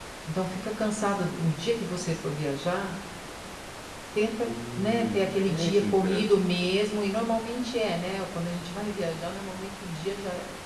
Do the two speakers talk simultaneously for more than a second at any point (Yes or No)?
Yes